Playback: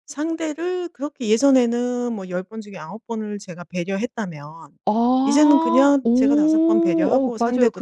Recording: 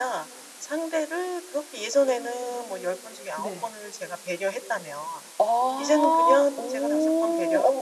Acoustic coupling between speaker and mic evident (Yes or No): Yes